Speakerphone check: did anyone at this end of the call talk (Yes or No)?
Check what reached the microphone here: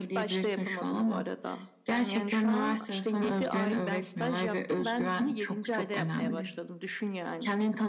No